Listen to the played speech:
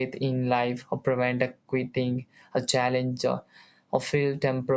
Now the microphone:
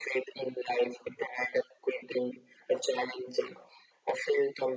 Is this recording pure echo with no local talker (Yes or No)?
Yes